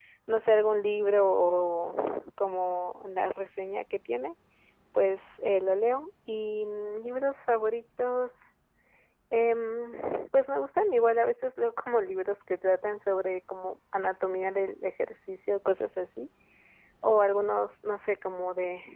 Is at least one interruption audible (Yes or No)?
No